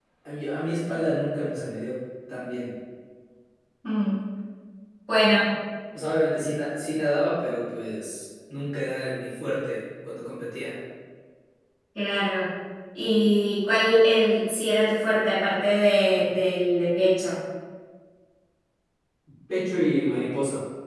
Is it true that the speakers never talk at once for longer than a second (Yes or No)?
Yes